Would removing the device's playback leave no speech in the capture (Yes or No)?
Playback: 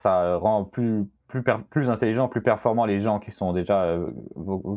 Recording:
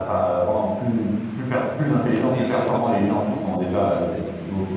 No